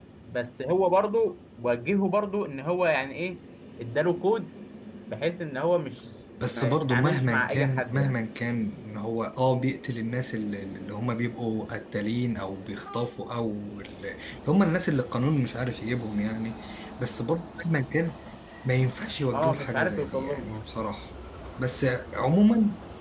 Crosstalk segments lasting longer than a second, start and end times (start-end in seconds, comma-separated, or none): 6.5-8.1, 19.3-20.6